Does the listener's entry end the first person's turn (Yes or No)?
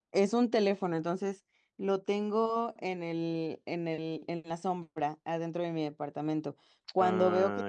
No